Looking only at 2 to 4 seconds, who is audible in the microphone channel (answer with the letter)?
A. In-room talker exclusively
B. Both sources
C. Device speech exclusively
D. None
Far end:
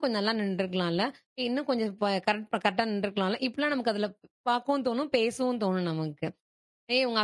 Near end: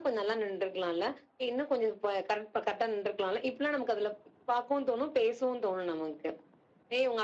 C